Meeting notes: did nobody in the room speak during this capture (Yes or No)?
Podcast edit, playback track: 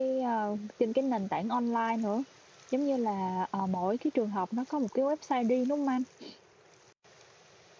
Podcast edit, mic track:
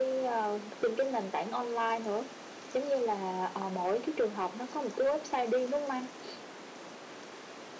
Yes